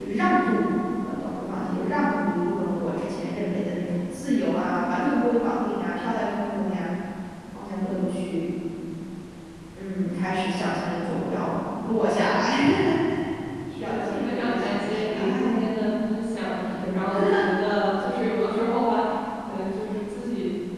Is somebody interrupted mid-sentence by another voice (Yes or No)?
Yes